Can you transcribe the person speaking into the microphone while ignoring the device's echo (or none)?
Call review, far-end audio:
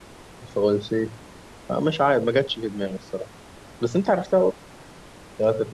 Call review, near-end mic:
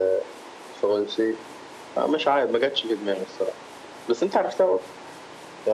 none